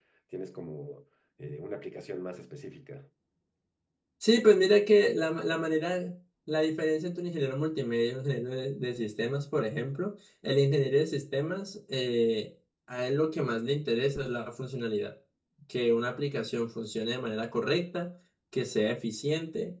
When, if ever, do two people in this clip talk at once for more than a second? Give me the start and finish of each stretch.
none

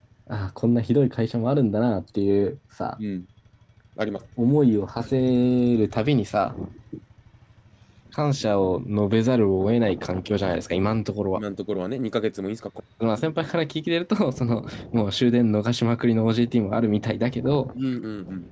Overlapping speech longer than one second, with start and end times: none

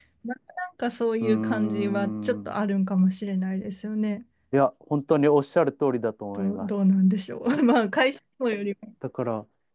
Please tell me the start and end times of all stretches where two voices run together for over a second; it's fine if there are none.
1.2-2.5

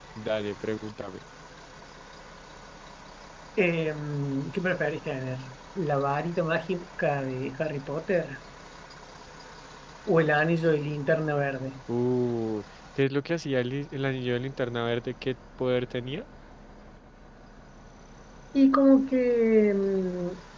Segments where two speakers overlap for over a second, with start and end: none

